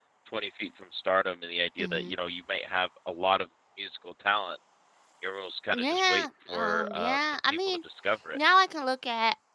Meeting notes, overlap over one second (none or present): present